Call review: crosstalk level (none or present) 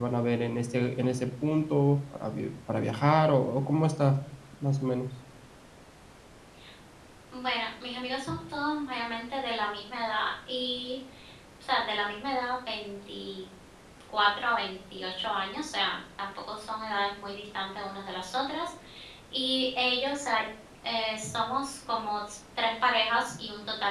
none